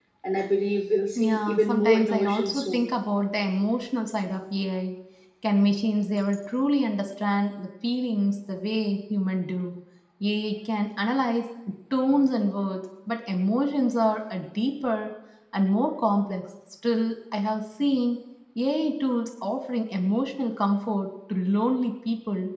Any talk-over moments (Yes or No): Yes